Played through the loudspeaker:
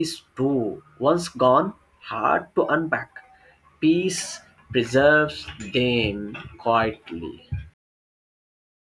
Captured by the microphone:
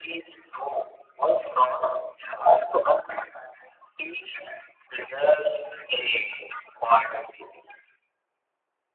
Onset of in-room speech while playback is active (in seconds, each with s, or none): none